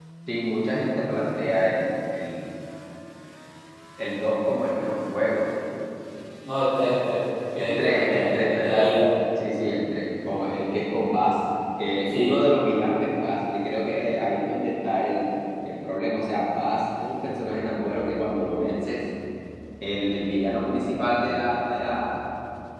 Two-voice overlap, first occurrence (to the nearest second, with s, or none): 8 s